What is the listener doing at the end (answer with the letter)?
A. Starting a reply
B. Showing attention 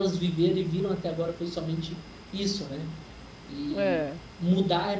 B